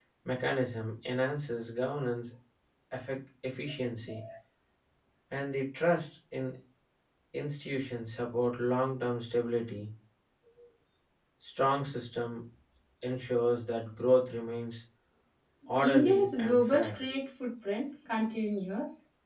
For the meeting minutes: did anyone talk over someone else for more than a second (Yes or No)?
Yes